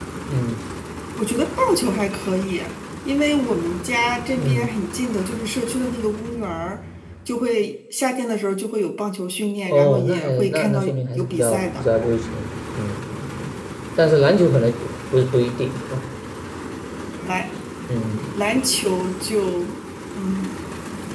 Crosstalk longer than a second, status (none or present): present